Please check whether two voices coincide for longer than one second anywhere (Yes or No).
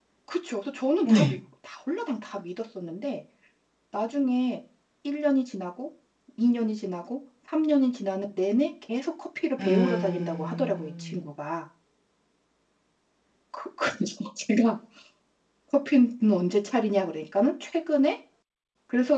Yes